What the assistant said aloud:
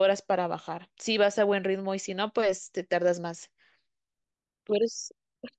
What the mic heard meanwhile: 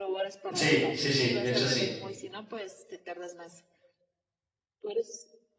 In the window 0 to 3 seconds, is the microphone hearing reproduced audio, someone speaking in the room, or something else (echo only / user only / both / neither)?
both